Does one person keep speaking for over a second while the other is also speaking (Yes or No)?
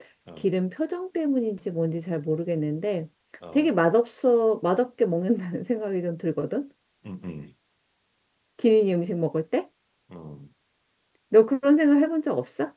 No